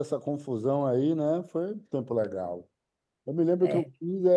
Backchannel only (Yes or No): Yes